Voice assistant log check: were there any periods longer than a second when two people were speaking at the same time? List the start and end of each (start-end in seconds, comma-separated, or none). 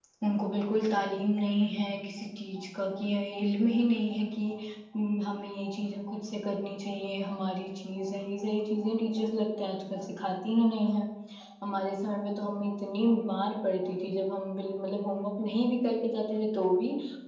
none